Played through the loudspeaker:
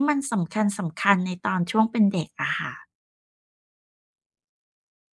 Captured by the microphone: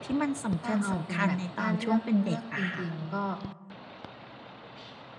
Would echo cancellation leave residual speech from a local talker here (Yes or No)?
Yes